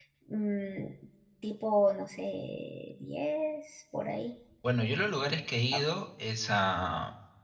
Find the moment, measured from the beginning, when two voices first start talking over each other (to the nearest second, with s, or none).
none